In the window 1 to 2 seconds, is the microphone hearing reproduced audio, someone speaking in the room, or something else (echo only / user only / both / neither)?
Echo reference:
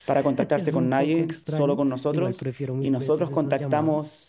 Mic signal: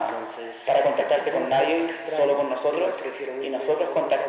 echo only